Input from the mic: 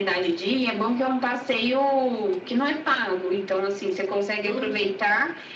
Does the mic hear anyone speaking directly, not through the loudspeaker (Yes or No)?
Yes